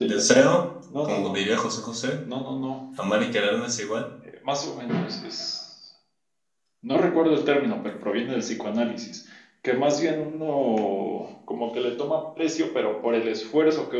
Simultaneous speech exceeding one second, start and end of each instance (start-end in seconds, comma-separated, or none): none